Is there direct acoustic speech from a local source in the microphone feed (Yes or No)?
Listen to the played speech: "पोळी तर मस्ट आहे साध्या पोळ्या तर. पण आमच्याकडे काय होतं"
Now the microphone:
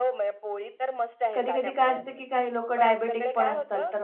Yes